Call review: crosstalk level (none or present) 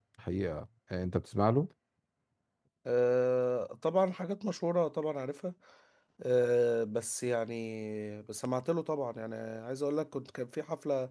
none